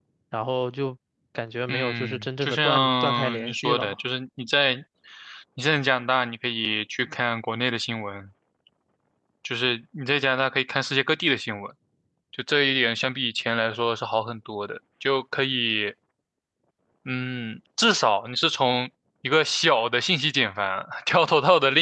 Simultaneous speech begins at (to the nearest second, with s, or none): 2 s